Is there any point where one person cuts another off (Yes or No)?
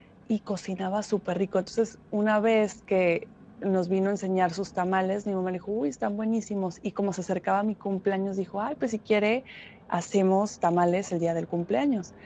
No